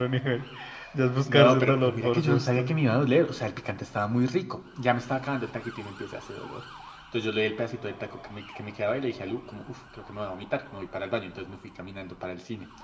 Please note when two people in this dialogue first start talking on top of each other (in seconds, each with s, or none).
1.3 s